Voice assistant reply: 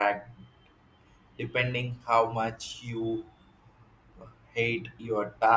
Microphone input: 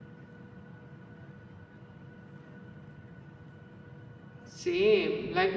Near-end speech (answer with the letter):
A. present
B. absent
A